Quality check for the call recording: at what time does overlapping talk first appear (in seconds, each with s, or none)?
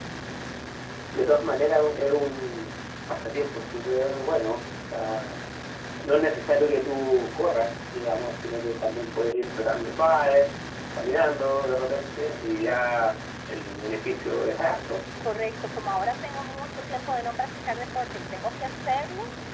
none